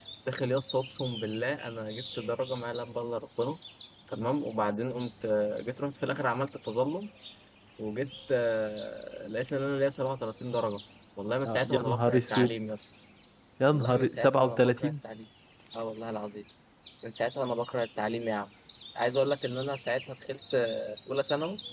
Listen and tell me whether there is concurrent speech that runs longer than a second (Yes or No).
Yes